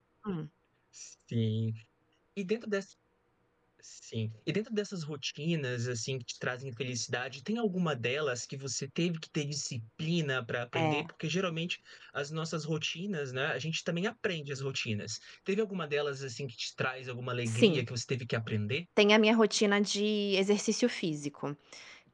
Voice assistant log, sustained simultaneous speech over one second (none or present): none